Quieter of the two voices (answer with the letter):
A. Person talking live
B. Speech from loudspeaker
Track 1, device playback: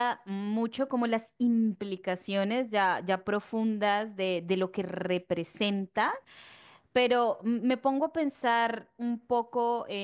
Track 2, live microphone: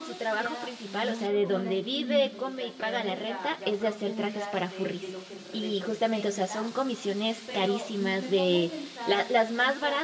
B